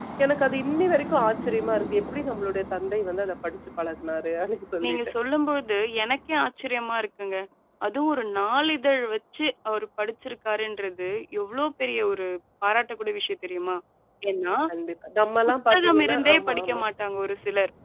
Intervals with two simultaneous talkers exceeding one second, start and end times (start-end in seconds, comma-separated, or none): 15.4-16.8